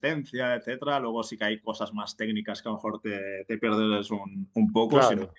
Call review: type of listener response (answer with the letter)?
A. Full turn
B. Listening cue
B